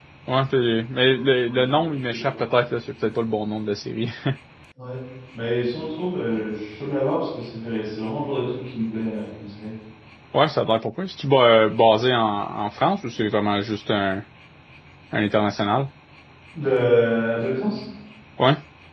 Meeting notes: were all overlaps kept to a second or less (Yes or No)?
No